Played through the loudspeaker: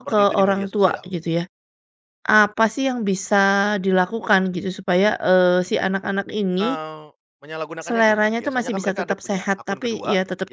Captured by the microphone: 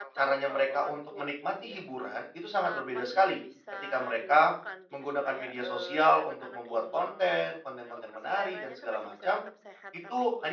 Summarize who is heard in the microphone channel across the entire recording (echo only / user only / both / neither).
both